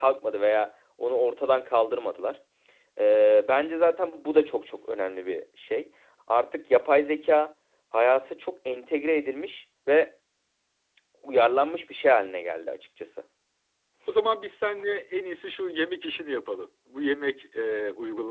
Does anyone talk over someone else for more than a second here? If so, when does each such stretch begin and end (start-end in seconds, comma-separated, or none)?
none